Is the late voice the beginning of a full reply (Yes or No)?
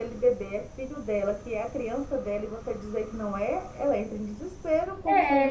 Yes